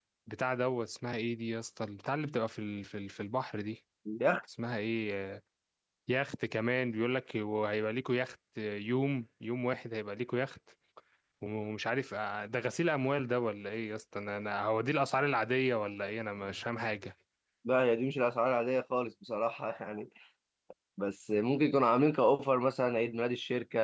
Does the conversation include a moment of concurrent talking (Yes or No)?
No